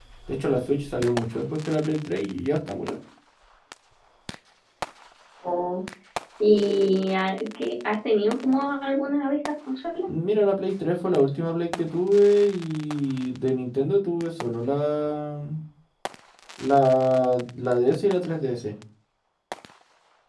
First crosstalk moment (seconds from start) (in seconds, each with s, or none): none